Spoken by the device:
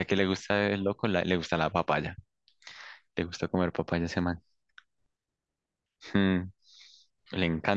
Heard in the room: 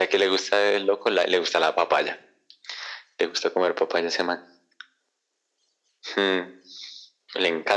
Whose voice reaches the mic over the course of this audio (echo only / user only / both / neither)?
echo only